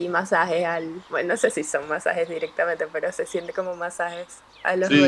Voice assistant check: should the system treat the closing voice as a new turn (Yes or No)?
Yes